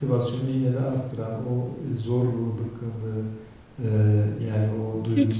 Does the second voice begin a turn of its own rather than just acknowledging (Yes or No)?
No